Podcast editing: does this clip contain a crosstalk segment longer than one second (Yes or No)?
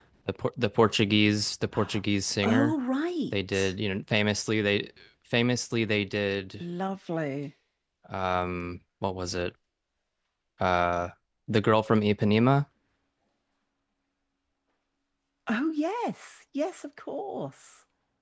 No